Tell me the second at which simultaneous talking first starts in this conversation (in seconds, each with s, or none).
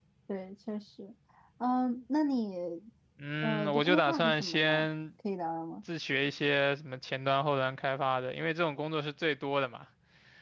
3.4 s